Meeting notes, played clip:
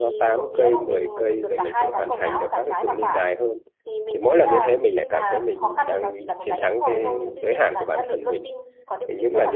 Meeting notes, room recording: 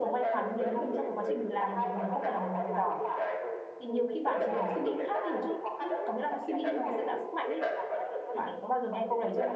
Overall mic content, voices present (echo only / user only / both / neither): both